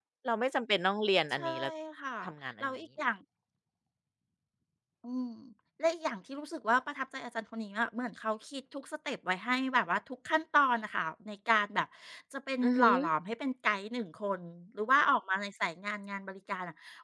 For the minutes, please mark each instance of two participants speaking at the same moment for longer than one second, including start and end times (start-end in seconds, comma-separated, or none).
none